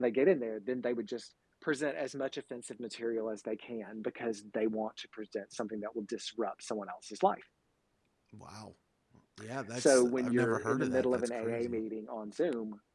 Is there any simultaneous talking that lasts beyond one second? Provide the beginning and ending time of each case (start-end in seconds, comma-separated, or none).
9.8-11.8